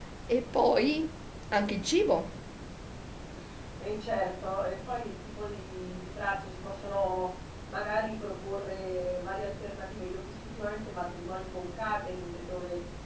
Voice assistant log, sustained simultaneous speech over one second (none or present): none